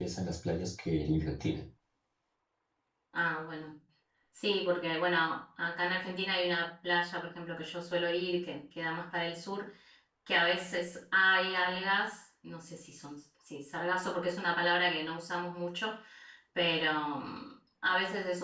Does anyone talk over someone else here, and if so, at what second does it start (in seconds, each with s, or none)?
none